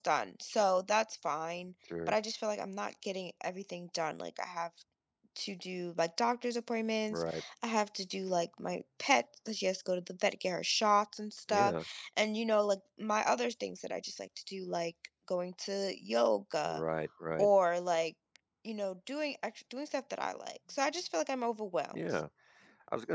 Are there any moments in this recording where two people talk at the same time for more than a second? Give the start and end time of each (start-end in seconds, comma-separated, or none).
none